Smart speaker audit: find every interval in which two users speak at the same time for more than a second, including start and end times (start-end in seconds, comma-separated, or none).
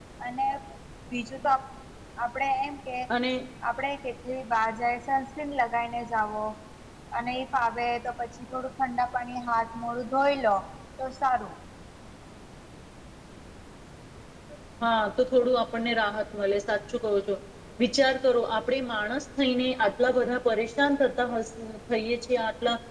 none